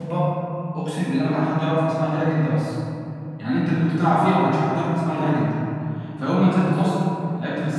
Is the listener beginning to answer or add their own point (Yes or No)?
No